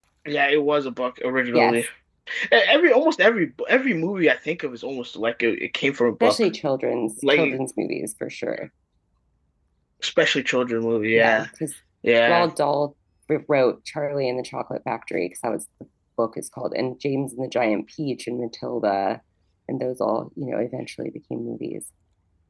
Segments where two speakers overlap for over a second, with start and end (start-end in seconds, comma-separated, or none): none